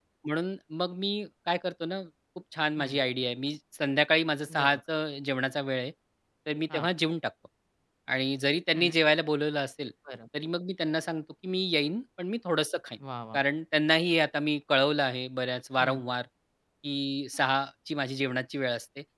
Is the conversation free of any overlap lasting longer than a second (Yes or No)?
Yes